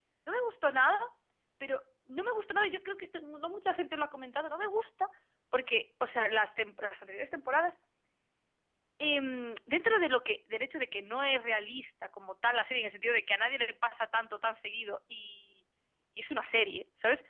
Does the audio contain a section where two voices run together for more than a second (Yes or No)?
No